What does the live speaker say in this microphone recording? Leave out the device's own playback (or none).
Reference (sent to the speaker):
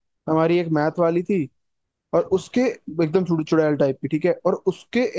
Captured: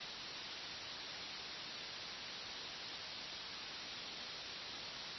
none